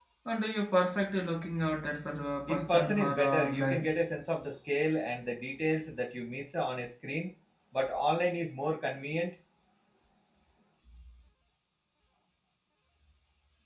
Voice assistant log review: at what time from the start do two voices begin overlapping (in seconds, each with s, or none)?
2.5 s